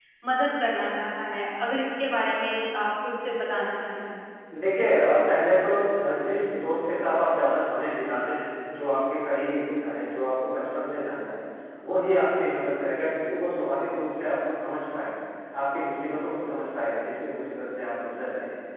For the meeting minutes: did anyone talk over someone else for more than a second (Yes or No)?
No